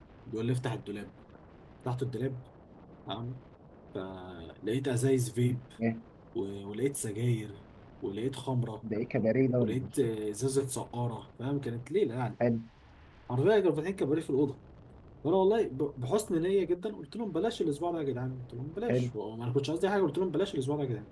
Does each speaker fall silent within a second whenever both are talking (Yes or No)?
Yes